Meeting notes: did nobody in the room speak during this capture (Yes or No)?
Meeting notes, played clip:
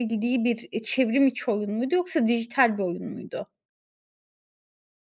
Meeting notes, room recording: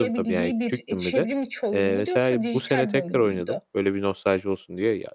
No